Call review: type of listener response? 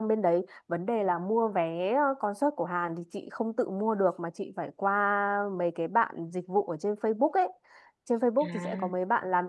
listening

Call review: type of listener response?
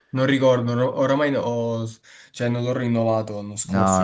taking over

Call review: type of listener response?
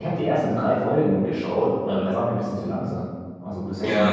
listening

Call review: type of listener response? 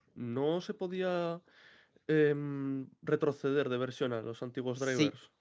taking over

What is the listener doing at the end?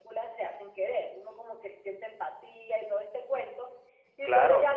listening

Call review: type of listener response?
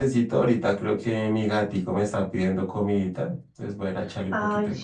taking over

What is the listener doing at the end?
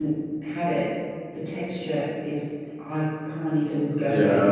taking over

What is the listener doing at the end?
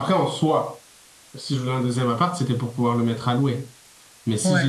listening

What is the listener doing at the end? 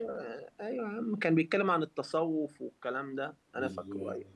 listening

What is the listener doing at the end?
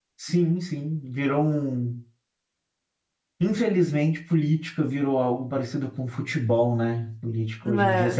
listening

